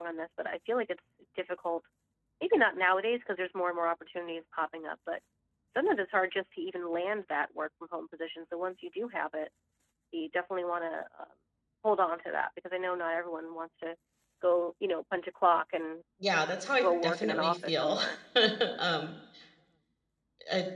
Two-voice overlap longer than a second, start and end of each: 16.8-18.0

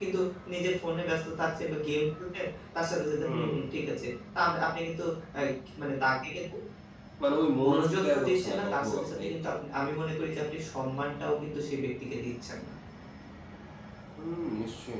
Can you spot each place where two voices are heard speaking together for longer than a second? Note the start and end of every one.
7.6-9.5

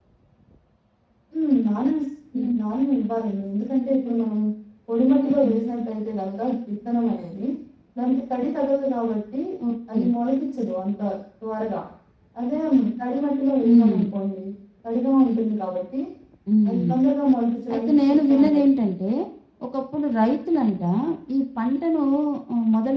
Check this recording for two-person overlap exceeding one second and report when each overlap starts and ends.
17.7-18.9

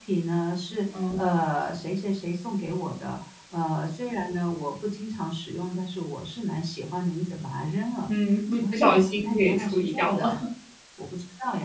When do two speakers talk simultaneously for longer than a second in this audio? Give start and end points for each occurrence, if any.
8.6-10.2

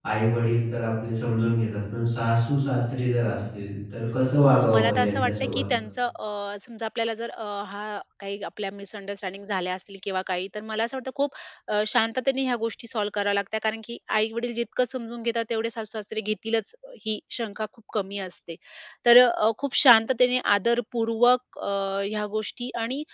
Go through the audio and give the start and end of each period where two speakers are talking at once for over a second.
4.4-5.6

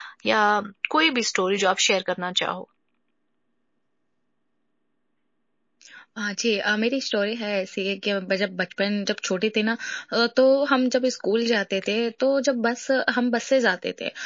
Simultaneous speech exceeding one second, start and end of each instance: none

